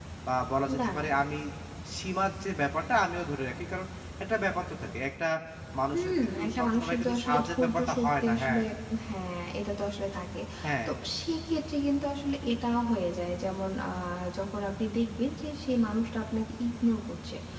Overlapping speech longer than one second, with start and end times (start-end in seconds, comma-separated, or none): 5.9-8.6